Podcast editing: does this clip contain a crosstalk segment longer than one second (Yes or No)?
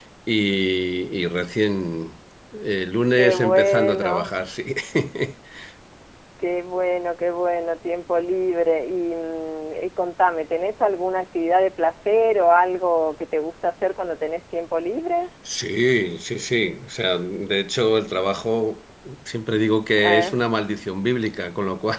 Yes